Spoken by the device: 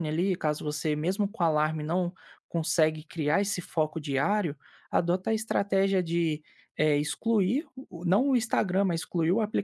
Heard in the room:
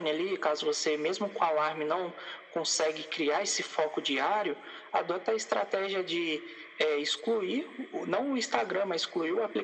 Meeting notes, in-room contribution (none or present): none